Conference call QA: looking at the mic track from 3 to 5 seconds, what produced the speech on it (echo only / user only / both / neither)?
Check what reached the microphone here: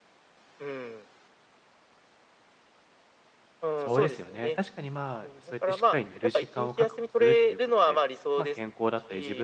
both